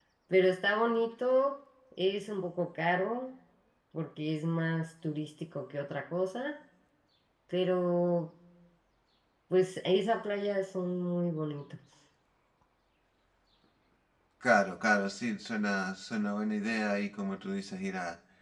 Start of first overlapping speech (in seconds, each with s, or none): none